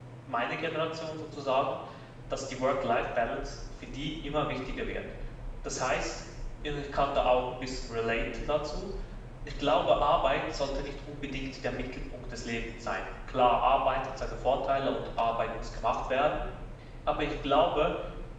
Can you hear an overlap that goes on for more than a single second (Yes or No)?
No